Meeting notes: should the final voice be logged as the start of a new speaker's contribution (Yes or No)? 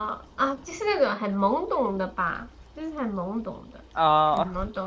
No